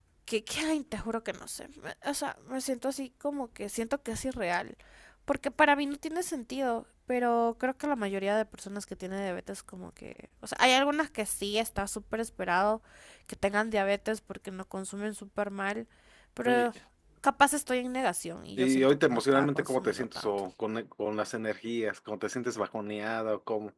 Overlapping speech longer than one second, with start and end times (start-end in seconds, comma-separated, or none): 18.6-20.3